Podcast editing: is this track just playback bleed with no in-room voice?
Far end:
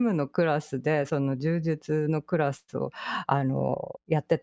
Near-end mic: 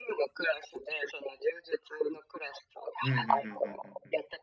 No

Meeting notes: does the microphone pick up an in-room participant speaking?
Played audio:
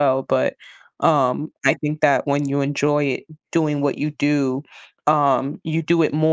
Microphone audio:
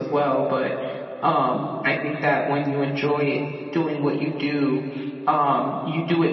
No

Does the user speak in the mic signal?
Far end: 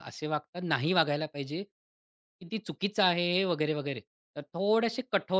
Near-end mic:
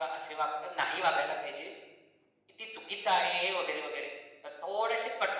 No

